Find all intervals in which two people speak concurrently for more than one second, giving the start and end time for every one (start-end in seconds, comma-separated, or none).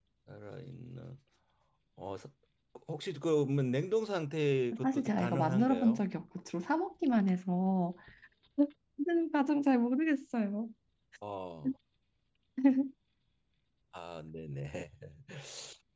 4.8-6.0